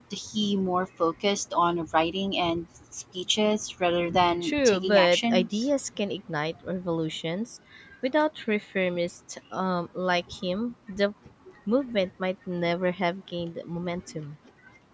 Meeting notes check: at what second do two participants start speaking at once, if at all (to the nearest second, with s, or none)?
4 s